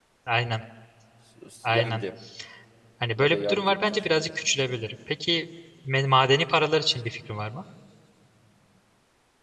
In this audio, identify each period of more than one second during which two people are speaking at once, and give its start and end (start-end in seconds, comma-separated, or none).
3.2-4.4